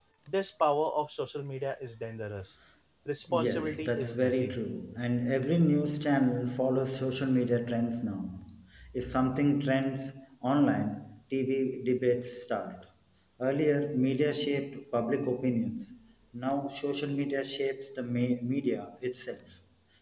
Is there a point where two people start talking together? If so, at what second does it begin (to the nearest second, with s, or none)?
3 s